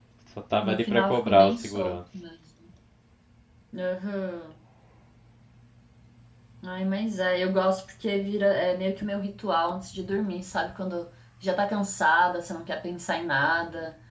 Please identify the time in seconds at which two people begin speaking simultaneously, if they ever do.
1 s

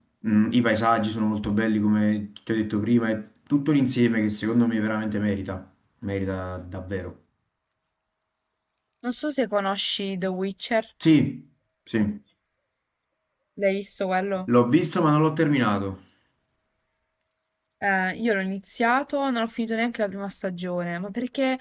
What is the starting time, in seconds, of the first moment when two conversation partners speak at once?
none

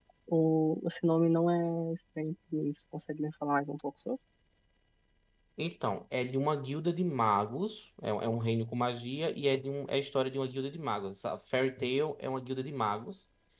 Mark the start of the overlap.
none

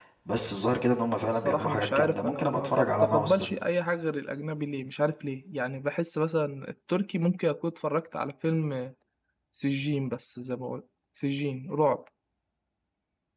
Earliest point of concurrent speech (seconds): 1 s

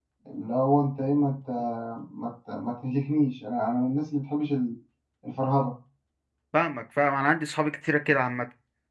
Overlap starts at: none

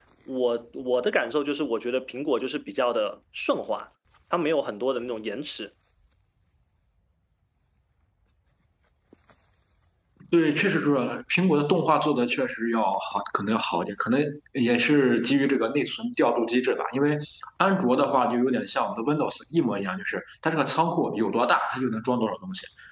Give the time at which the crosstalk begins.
none

